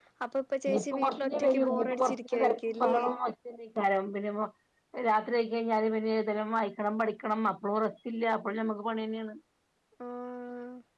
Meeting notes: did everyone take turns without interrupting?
No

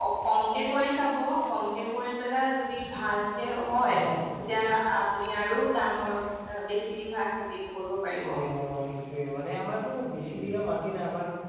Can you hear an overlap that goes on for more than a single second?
No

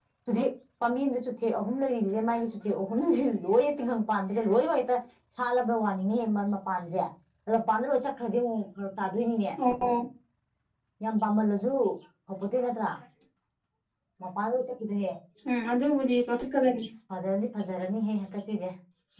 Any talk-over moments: No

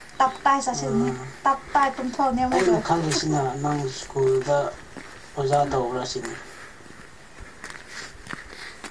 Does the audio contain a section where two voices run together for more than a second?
No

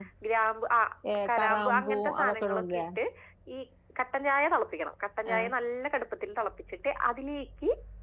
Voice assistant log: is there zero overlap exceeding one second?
No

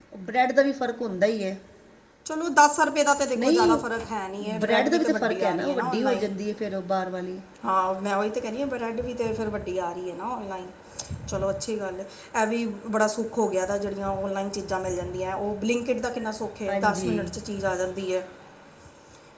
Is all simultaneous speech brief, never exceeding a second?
No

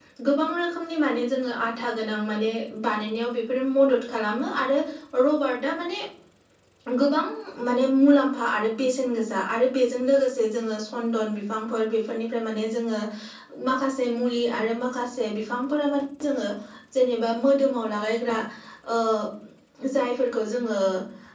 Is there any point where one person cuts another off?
No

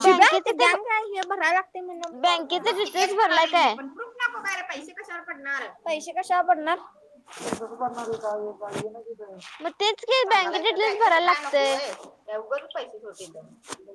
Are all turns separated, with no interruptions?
No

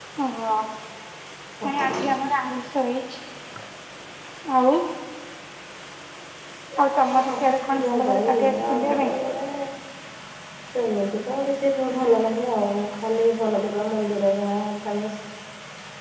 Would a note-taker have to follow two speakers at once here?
Yes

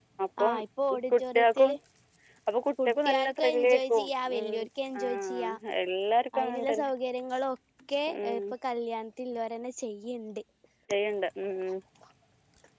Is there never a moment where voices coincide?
No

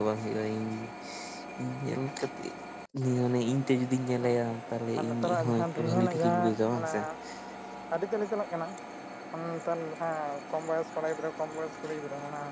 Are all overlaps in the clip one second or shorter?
No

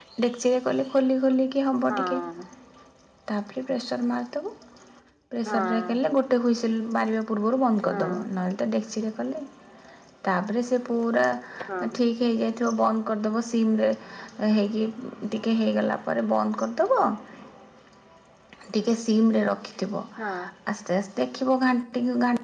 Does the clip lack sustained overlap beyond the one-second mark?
Yes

